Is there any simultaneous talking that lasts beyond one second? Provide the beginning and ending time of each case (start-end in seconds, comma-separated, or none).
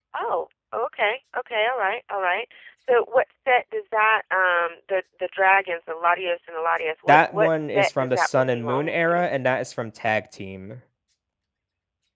7.1-9.2